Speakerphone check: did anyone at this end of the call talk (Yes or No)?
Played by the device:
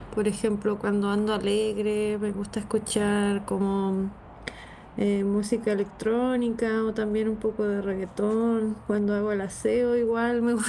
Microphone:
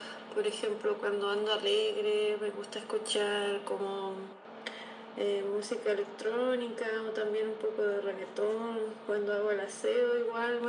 No